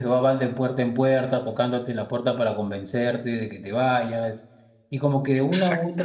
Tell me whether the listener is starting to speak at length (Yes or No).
No